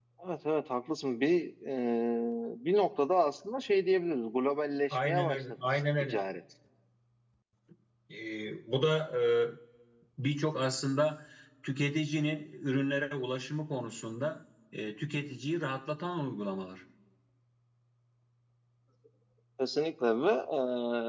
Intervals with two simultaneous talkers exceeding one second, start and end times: 4.9-6.2

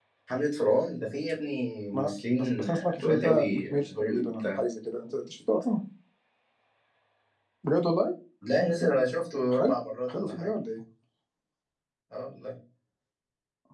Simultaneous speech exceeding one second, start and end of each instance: 1.9-4.5

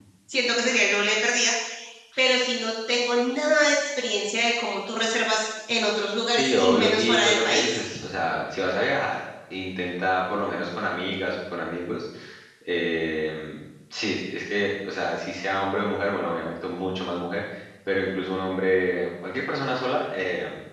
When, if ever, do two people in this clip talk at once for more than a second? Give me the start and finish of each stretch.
6.4-7.8

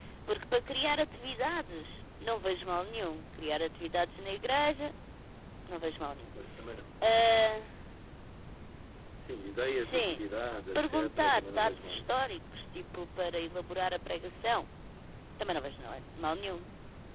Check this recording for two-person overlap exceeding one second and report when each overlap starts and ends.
10.8-12.2

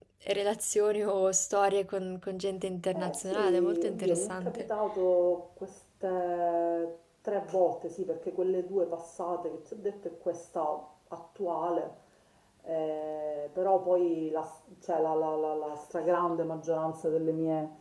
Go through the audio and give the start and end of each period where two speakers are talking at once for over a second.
2.9-4.7

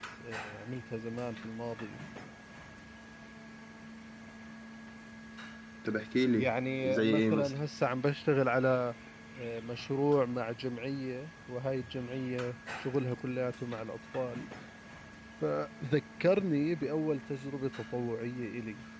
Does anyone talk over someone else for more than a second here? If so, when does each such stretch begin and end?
6.4-7.6

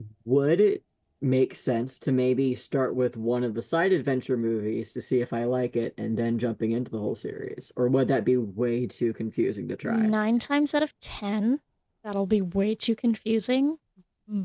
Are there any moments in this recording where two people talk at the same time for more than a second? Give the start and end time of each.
none

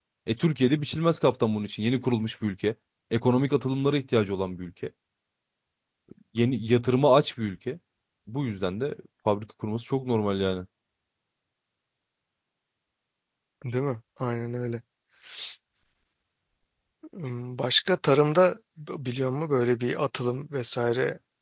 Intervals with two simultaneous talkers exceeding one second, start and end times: none

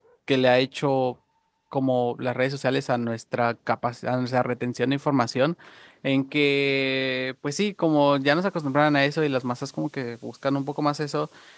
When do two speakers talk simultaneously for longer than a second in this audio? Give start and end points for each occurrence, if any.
none

